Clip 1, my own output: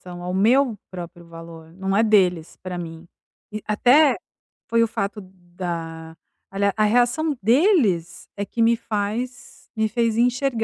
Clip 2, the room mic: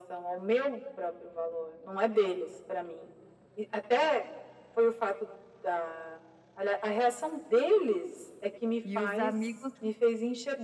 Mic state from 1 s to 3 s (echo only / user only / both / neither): echo only